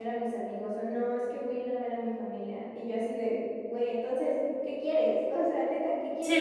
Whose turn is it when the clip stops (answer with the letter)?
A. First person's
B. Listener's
A